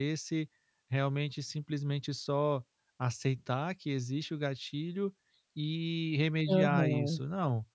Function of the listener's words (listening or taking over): listening